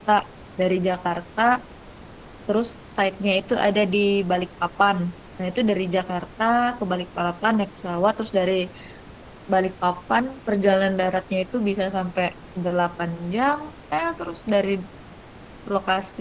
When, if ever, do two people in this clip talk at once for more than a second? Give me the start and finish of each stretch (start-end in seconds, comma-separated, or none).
none